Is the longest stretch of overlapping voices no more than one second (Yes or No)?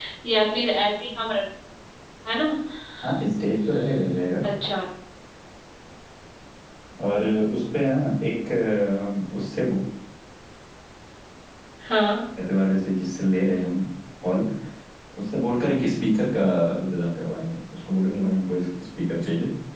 Yes